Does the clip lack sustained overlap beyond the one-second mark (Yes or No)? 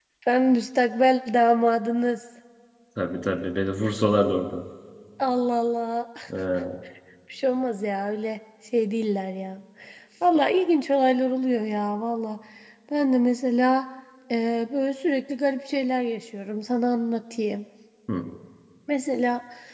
Yes